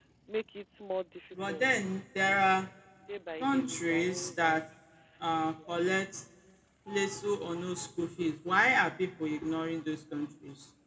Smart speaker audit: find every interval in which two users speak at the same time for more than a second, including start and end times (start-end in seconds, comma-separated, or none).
3.4-4.6